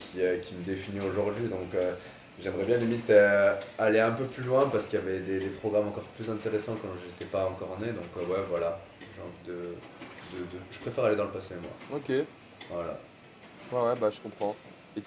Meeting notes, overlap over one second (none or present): none